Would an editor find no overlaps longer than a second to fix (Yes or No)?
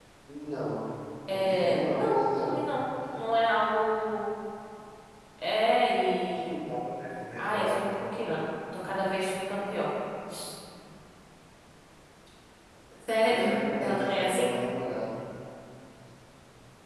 No